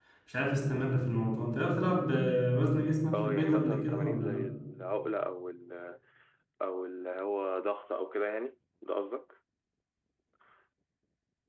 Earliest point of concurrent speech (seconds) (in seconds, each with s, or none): 3.1 s